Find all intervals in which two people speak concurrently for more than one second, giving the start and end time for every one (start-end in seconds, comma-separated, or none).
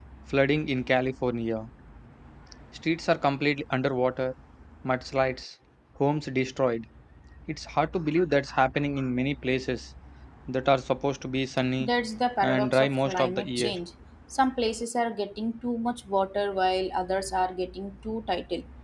12.4-13.7